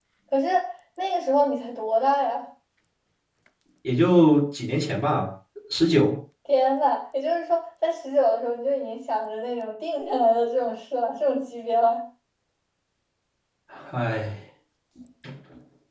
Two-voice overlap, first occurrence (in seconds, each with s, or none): none